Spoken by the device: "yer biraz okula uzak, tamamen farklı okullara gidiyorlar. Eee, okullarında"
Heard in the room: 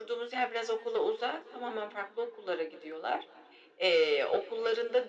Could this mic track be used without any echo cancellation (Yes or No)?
No